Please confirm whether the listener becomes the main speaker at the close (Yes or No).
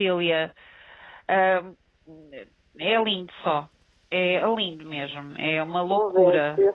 Yes